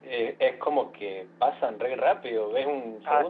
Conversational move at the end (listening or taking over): taking over